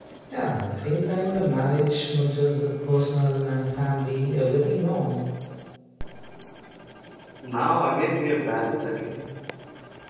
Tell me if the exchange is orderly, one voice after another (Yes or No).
Yes